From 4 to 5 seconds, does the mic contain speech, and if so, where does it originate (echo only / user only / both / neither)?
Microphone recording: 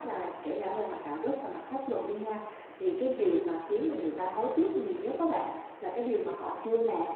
echo only